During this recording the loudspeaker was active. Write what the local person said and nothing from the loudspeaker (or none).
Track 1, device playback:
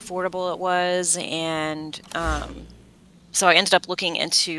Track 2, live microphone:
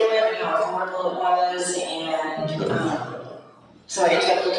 Okay.